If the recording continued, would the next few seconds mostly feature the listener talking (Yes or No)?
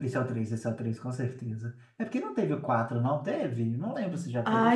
Yes